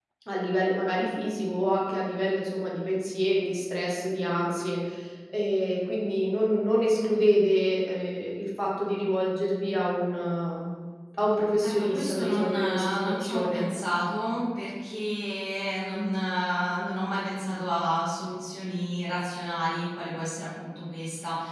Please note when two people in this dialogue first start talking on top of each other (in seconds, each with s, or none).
11.6 s